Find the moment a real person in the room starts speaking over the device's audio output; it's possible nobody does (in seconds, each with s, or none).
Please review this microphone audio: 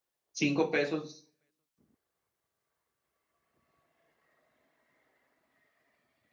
0.3 s